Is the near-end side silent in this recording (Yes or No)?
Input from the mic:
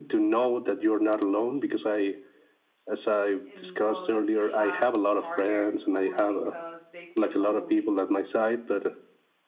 No